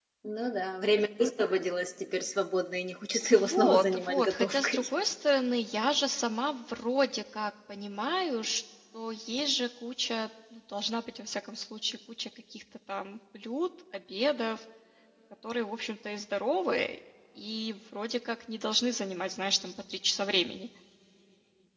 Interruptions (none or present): present